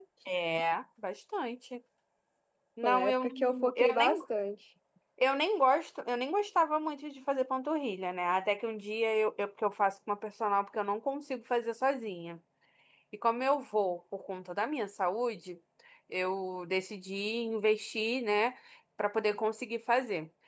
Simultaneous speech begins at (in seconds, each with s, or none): 2.8 s